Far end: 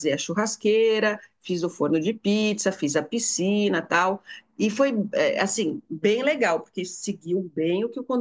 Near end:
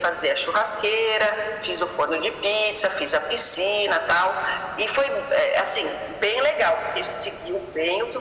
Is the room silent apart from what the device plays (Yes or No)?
Yes